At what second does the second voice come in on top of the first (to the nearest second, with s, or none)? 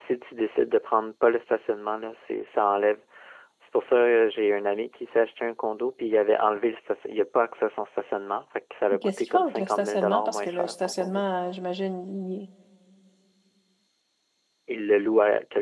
9 s